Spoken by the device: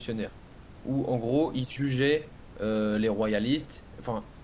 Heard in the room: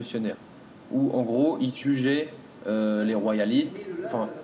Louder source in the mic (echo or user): echo